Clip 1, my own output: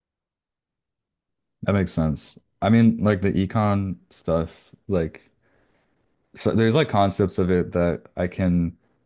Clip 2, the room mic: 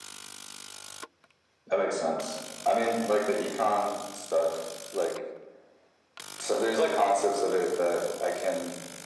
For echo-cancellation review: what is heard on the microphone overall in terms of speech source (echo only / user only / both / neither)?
echo only